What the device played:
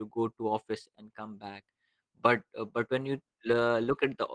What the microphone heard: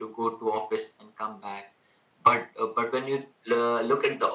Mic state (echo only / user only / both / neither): echo only